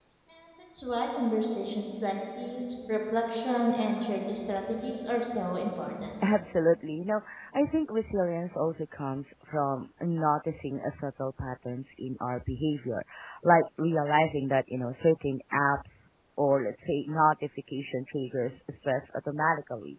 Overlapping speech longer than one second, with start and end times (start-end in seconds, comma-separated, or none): none